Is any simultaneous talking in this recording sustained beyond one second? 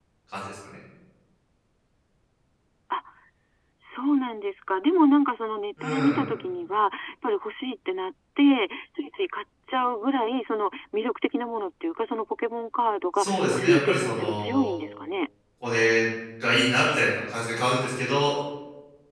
Yes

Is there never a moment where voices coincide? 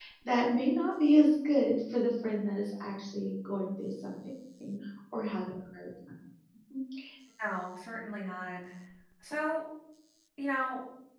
Yes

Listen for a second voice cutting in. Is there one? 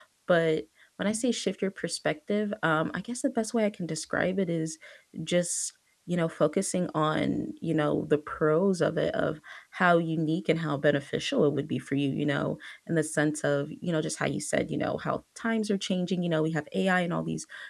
No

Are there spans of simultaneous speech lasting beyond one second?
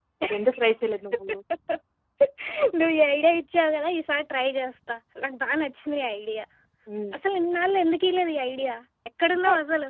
No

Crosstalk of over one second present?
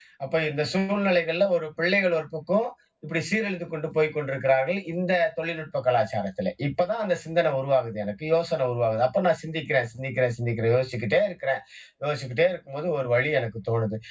No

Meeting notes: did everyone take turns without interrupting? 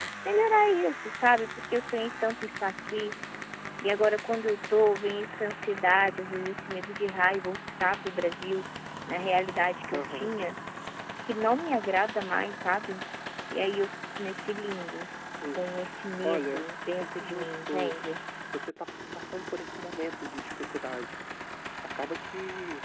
No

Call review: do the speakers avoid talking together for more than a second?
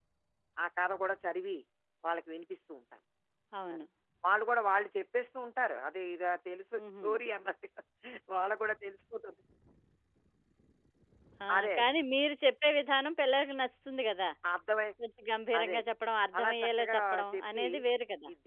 No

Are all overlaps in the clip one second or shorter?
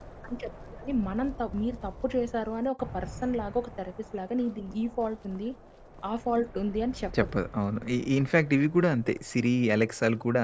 Yes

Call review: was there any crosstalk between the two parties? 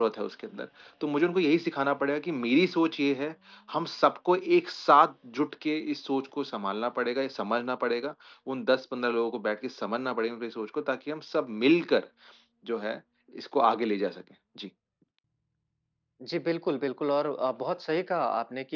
No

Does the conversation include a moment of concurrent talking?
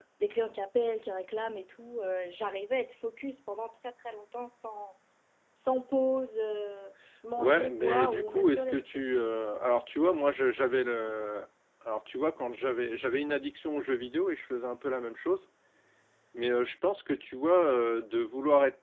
Yes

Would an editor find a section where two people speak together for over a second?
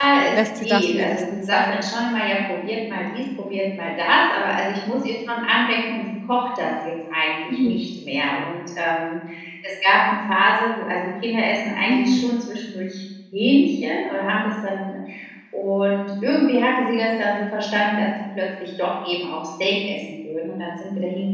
Yes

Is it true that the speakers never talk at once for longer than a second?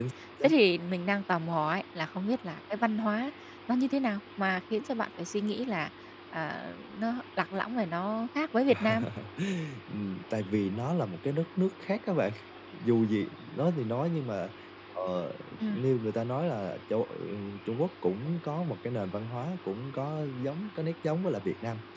Yes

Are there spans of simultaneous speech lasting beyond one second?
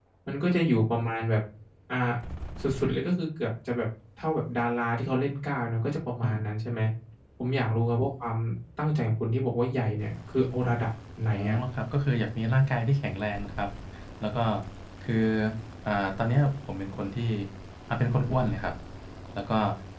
No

